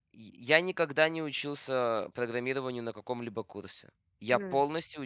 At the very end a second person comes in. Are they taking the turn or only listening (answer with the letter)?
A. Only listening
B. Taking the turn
A